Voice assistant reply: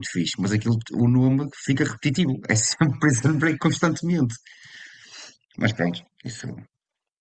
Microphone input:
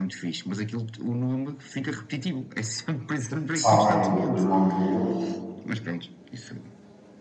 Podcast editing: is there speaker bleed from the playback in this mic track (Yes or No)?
Yes